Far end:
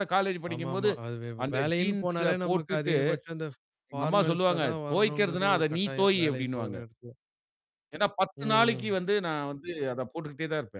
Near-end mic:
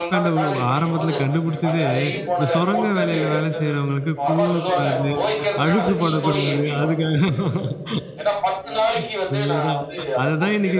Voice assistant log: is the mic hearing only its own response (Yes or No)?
No